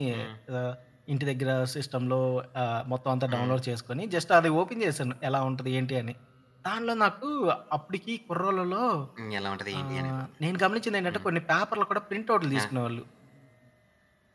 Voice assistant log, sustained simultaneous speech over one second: none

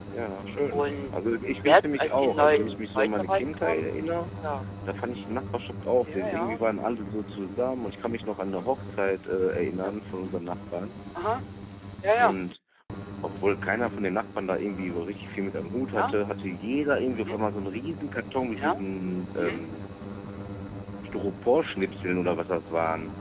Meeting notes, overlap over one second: present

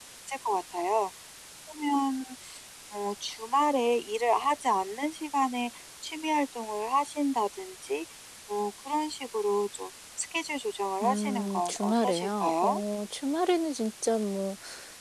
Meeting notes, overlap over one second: present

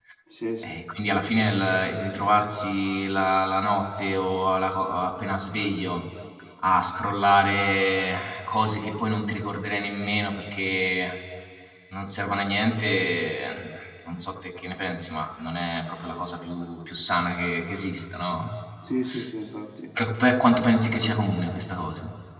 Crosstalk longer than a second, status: none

